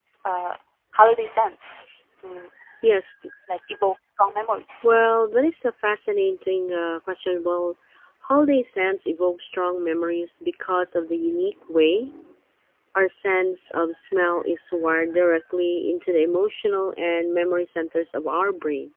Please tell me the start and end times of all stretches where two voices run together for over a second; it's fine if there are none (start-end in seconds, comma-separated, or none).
none